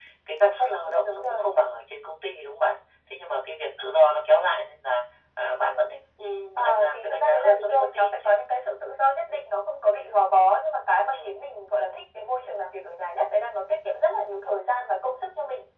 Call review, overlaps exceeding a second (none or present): present